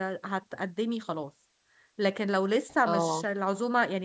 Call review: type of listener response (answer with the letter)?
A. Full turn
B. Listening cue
B